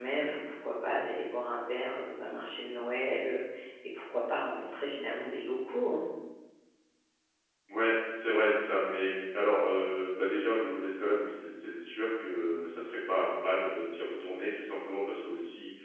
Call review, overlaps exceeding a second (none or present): none